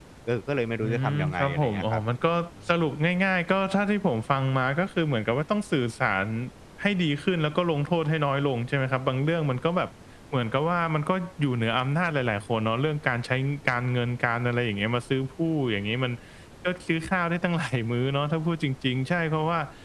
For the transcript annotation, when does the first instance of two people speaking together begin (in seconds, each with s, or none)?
0.8 s